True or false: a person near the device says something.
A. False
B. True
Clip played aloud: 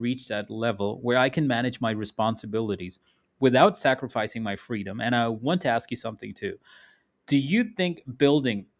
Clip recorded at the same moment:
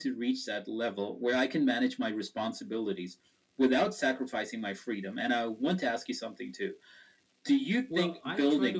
B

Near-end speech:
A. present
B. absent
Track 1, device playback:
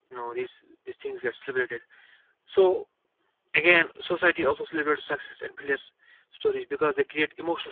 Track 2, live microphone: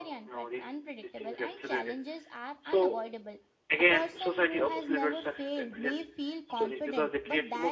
A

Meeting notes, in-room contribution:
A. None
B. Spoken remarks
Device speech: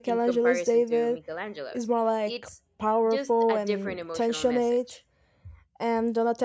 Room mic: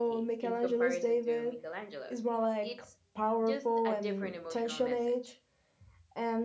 A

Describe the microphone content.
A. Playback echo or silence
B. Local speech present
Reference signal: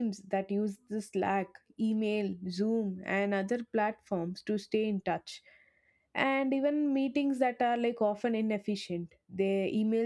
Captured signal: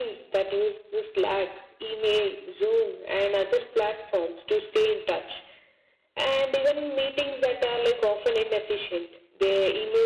A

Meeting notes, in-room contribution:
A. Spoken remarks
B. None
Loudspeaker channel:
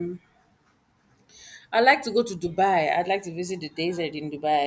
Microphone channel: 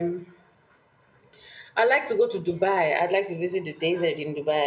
B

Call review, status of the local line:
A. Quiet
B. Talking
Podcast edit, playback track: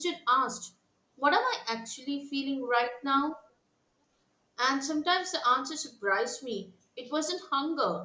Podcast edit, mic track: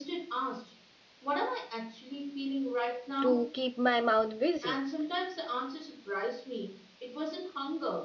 B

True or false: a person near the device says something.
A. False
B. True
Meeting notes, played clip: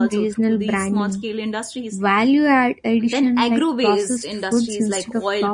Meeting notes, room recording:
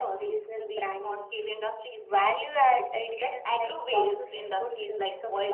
A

